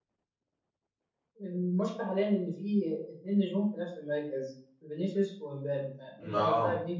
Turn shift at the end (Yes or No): No